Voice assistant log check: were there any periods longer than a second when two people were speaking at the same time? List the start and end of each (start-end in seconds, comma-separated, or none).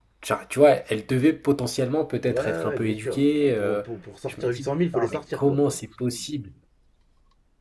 2.2-3.8, 4.3-5.6